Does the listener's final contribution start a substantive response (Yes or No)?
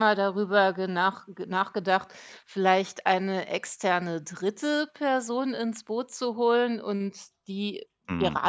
No